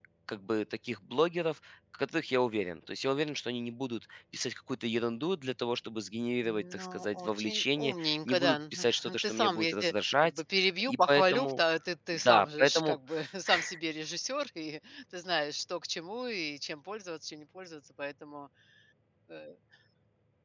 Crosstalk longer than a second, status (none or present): present